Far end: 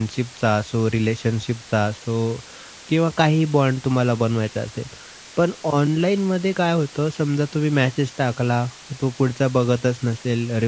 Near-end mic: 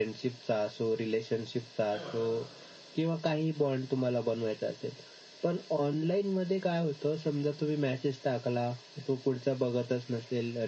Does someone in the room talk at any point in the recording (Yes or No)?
Yes